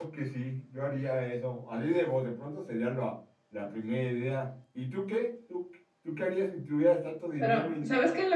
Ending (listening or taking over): taking over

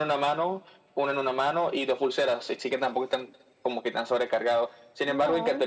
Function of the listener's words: listening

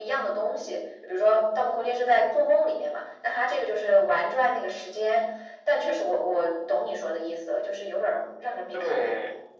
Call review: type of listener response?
taking over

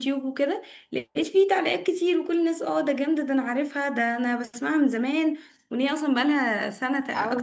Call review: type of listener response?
taking over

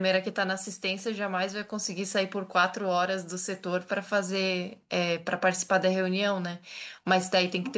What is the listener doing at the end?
listening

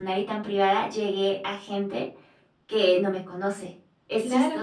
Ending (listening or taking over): taking over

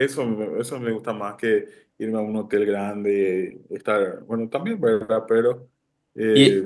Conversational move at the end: listening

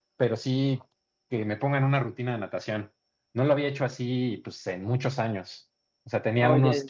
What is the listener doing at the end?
listening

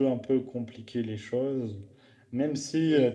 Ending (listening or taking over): listening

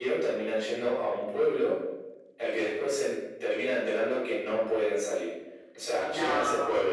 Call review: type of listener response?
listening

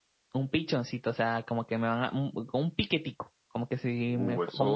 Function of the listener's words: taking over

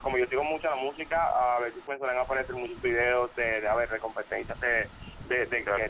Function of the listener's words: listening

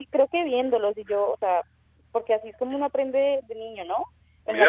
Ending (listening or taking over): taking over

